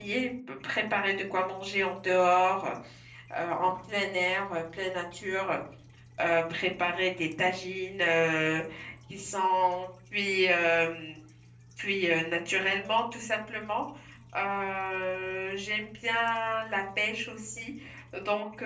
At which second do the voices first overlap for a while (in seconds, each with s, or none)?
none